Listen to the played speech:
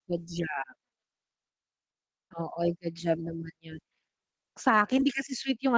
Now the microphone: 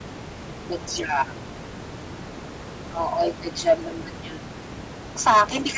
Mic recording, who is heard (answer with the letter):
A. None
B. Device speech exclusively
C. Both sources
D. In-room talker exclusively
B